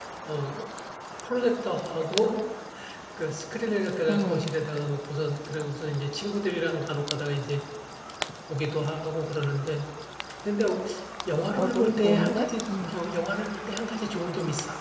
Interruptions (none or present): present